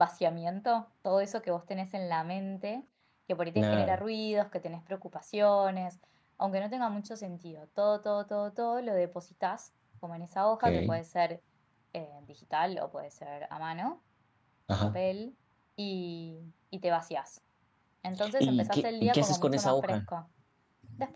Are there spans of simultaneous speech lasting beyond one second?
Yes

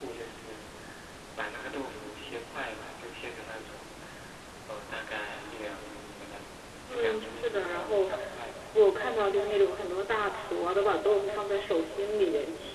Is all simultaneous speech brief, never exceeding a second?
No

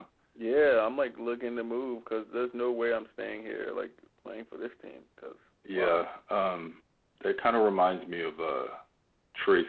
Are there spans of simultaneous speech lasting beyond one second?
No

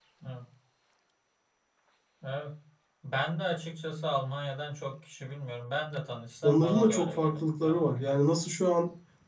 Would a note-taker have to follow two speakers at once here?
Yes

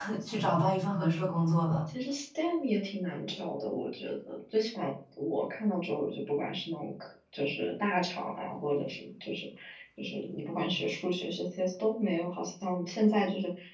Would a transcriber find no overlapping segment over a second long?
Yes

